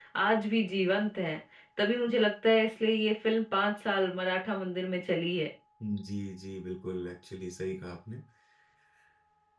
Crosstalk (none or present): none